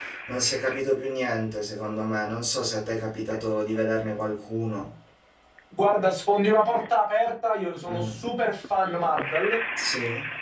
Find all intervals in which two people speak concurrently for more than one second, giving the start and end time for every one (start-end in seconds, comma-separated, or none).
none